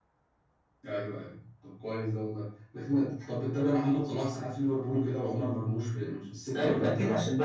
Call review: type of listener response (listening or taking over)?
taking over